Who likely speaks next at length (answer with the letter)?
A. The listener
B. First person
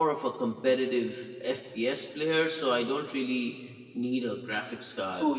A